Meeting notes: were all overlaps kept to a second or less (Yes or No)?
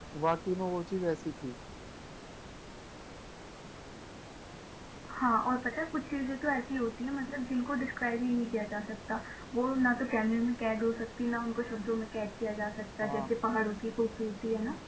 Yes